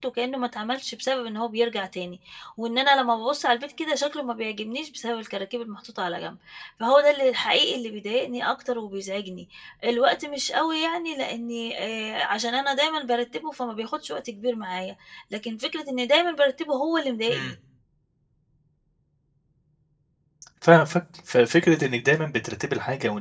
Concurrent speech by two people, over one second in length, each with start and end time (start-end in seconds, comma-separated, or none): none